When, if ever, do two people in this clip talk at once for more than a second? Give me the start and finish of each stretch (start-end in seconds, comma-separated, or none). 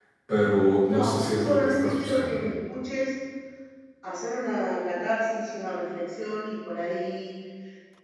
0.8-2.4